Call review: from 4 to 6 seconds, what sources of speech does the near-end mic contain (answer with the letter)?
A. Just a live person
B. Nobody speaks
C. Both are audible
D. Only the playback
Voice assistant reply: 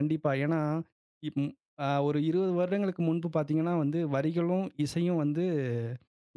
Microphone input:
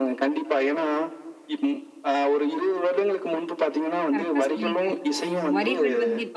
C